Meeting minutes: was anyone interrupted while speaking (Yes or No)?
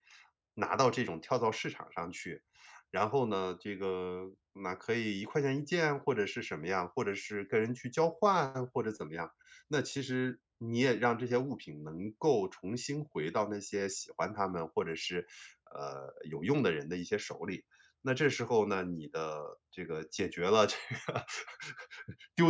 No